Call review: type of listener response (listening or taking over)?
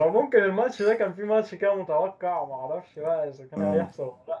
listening